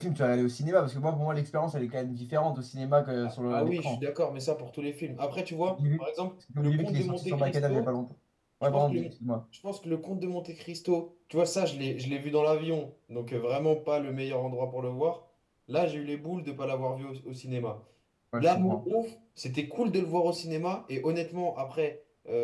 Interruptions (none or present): present